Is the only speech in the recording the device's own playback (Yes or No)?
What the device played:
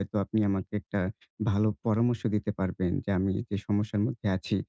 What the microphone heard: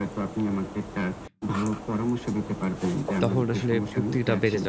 No